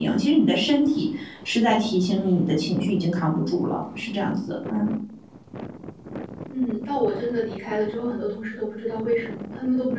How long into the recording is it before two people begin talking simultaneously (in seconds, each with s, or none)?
none